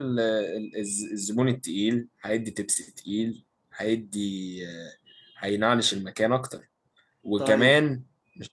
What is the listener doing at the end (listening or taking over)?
listening